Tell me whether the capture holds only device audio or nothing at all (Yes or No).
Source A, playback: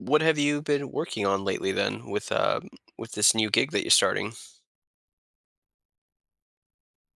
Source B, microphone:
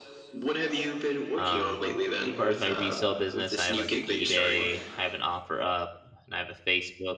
No